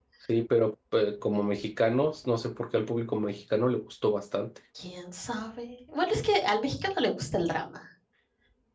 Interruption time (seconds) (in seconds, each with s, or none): none